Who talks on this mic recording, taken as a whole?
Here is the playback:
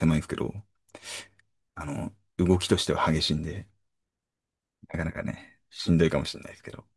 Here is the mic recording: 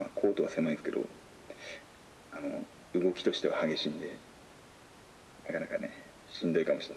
echo only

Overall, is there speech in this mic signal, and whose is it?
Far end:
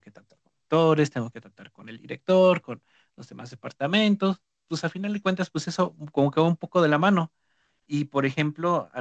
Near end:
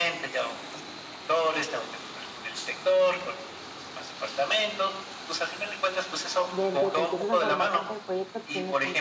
both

